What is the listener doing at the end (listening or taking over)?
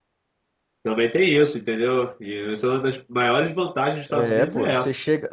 taking over